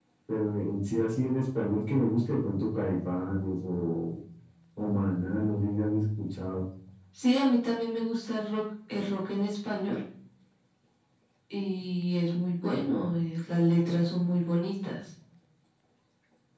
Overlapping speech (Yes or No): No